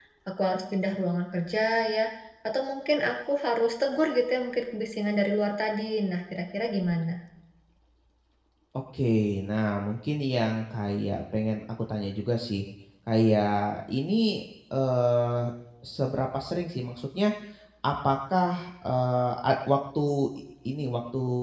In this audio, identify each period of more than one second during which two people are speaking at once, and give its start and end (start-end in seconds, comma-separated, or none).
none